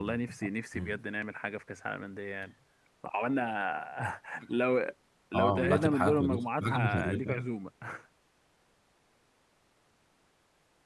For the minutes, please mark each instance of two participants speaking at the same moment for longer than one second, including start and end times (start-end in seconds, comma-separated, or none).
5.3-7.4